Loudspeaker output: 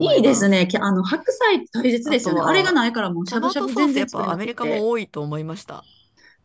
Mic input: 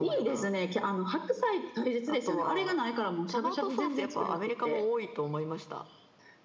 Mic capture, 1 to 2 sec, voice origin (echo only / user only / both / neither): echo only